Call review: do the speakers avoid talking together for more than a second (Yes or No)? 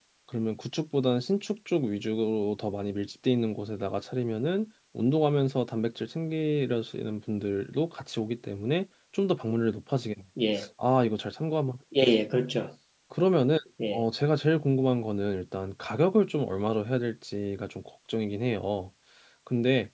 Yes